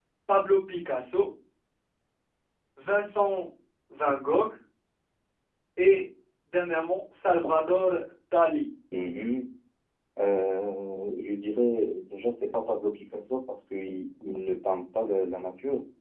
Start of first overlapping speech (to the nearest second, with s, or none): none